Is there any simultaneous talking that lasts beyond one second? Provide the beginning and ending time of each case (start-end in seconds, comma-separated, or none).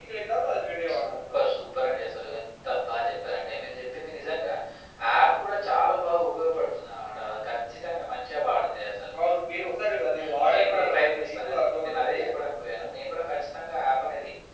10.2-12.2